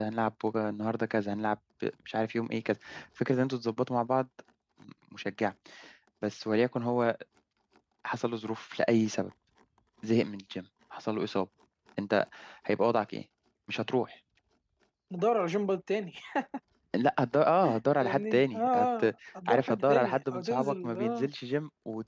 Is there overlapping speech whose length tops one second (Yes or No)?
Yes